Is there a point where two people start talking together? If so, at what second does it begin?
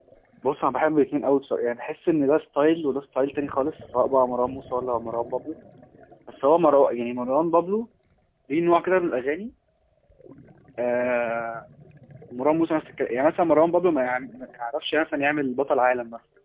none

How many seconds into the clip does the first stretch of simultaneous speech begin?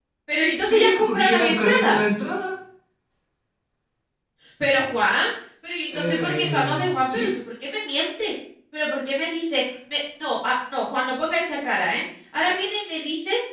0.6 s

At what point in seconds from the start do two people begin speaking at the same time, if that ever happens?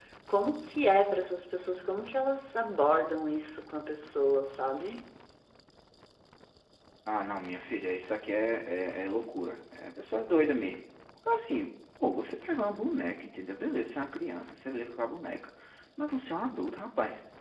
none

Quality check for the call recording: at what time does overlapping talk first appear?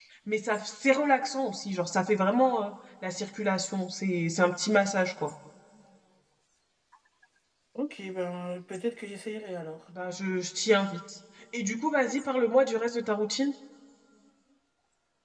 none

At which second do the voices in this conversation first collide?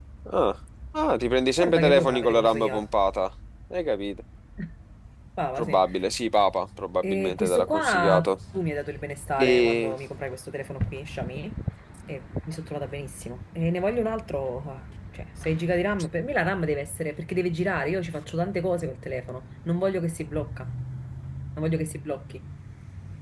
1.6 s

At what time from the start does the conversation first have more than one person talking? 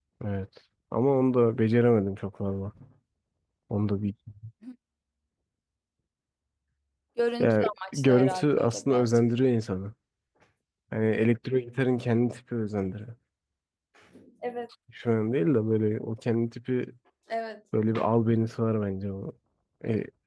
7.4 s

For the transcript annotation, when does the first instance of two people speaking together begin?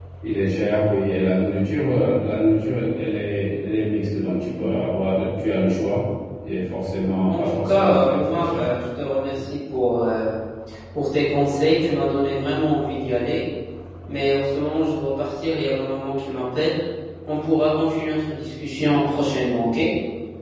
7.3 s

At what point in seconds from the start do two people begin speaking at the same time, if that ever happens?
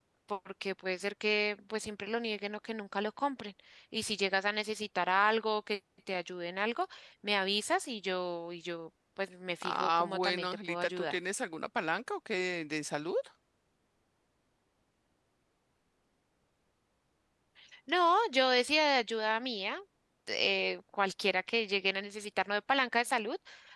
9.6 s

